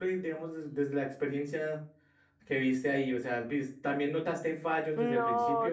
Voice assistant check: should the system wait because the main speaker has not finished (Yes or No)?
No